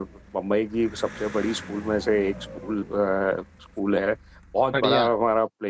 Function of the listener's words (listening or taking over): listening